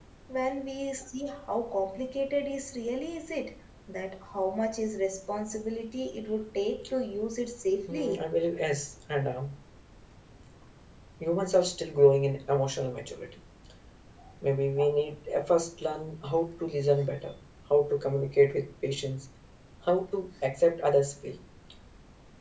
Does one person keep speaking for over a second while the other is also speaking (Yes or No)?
No